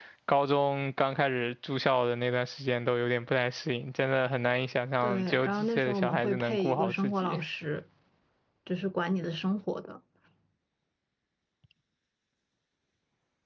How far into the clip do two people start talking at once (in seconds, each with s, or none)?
5.0 s